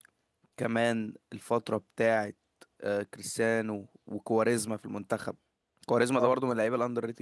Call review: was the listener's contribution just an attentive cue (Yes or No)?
Yes